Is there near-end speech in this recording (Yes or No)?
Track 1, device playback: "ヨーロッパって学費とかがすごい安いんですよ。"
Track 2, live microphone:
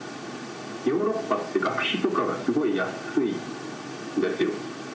No